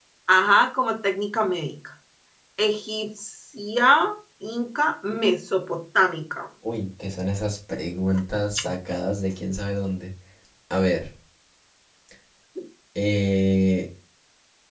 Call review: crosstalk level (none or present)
none